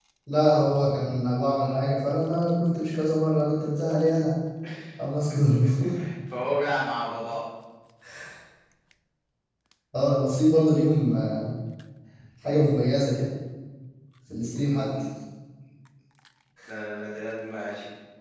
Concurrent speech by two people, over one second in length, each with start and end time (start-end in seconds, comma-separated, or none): none